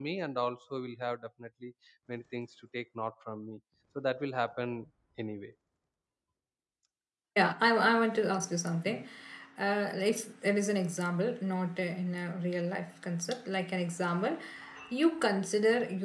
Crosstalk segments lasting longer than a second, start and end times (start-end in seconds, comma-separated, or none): none